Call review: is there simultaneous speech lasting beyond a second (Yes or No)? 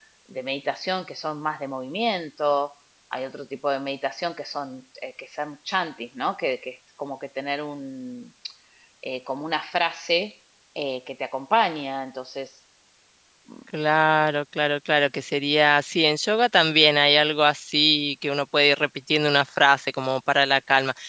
No